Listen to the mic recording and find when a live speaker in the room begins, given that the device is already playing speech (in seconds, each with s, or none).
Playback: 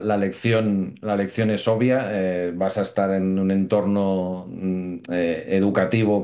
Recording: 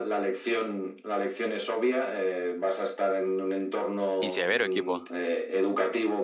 4.2 s